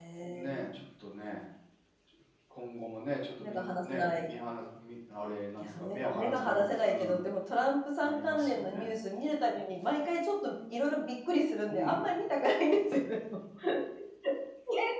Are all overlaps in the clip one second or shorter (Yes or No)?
No